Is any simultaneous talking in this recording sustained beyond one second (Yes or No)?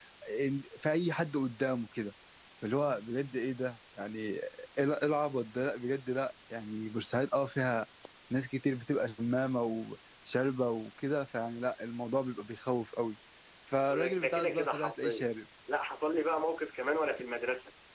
Yes